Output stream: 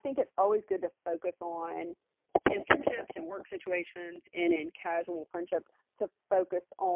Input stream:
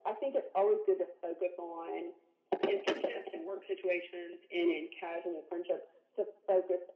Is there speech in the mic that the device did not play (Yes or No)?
No